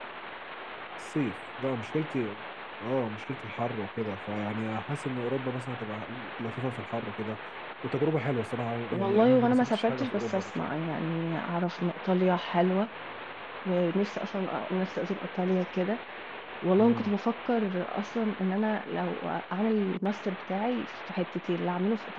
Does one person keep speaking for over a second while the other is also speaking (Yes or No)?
Yes